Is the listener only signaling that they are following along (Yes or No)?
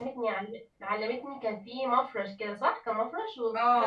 No